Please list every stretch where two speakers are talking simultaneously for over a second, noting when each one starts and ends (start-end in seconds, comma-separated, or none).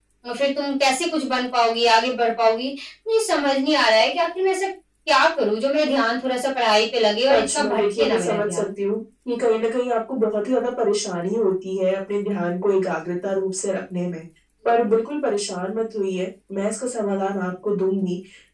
7.3-8.7